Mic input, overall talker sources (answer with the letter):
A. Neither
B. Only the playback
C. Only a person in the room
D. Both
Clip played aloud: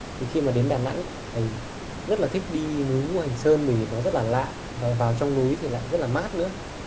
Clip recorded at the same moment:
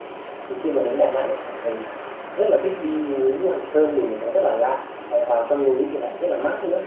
B